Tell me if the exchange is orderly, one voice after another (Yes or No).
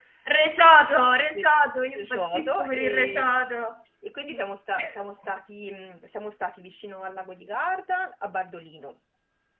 No